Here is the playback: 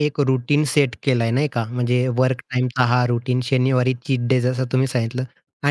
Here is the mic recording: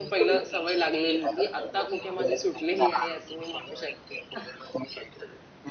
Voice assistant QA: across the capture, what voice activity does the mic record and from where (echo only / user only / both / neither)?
both